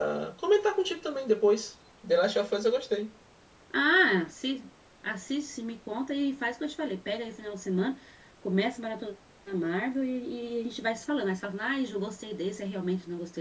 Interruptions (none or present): none